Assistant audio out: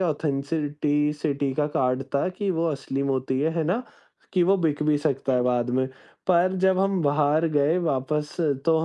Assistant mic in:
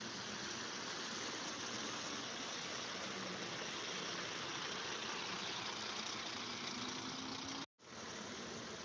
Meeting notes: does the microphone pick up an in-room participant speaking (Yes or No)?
No